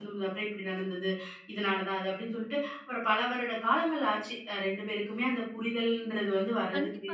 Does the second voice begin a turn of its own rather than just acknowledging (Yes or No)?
Yes